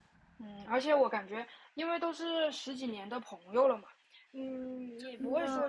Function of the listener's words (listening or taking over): listening